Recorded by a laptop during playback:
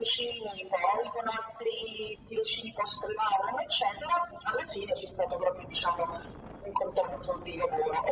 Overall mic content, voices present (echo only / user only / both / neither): echo only